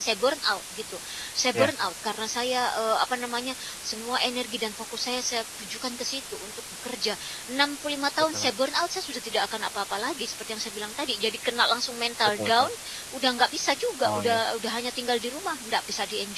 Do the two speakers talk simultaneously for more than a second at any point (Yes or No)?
No